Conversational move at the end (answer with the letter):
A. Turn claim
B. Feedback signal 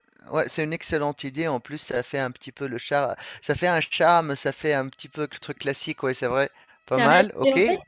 A